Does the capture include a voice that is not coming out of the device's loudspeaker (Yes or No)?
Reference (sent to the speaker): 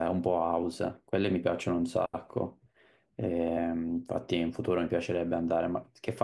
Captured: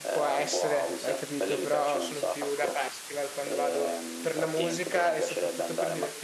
Yes